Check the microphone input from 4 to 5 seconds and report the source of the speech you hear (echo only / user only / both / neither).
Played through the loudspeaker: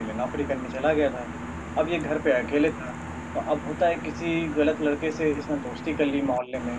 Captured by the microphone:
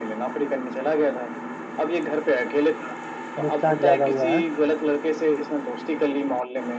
both